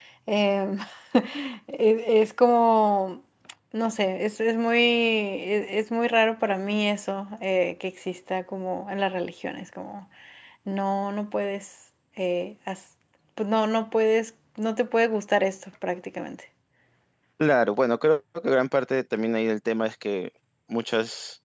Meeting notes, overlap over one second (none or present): none